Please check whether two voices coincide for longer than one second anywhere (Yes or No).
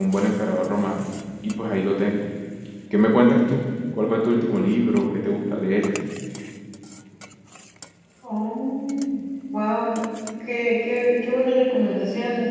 No